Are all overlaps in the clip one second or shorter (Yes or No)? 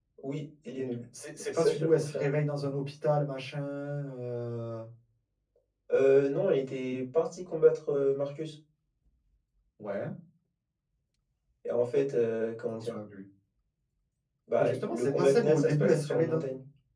No